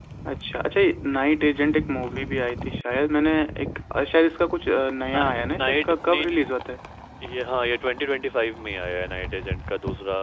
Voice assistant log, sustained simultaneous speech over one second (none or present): present